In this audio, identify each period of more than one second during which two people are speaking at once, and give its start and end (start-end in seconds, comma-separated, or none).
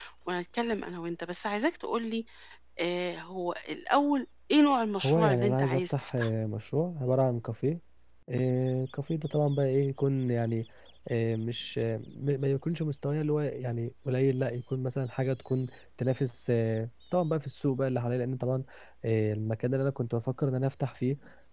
5.0-6.3